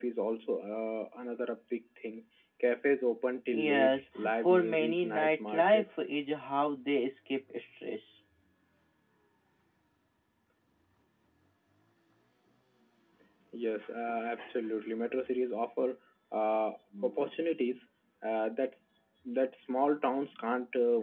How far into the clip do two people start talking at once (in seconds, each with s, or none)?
3.5 s